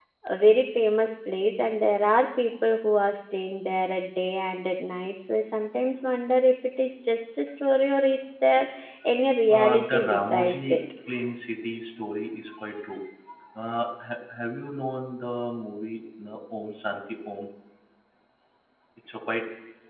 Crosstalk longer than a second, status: present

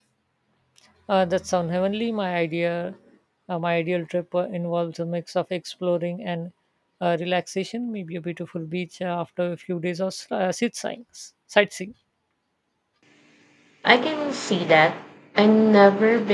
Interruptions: none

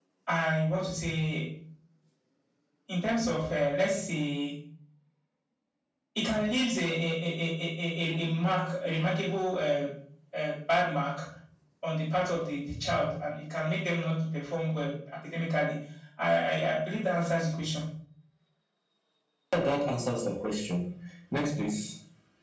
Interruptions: none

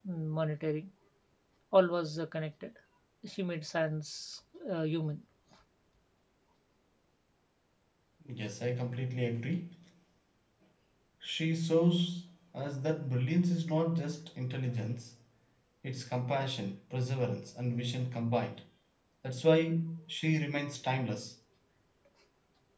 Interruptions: none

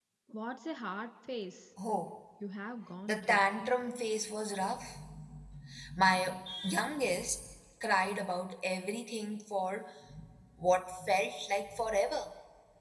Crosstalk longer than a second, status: none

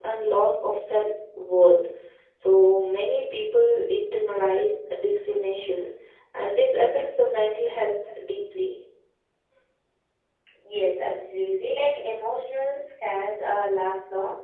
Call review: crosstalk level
none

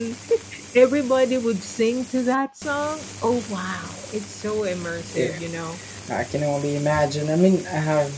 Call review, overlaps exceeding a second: none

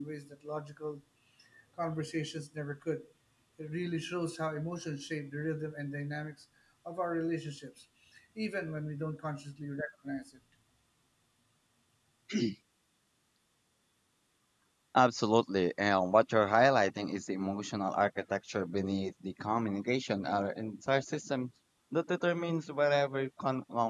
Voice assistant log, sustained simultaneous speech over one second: none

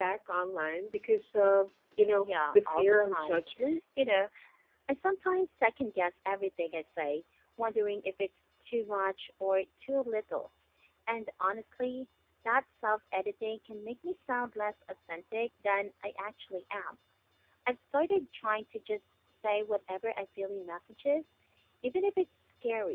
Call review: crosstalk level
present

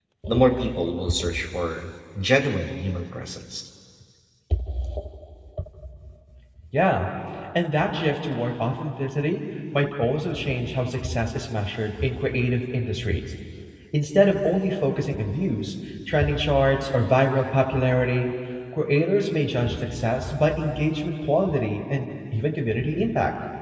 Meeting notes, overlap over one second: none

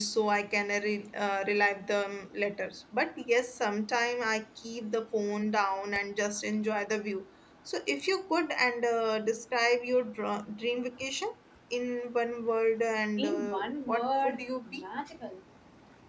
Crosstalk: present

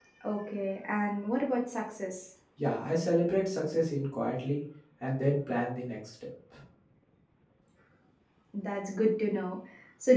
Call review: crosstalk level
none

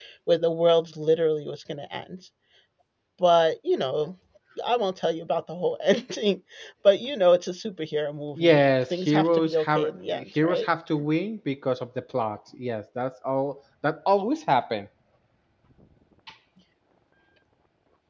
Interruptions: present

